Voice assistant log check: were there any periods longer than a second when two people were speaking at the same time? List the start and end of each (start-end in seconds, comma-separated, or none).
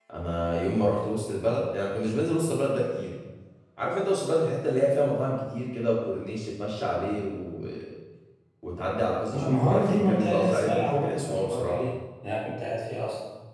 9.3-11.8